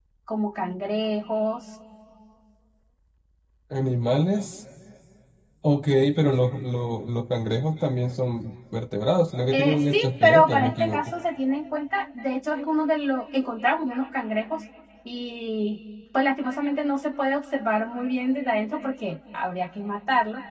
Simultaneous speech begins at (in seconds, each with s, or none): 9.5 s